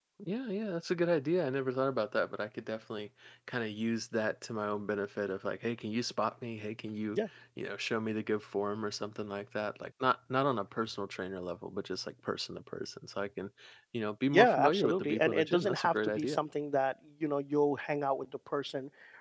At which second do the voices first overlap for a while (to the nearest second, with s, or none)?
14 s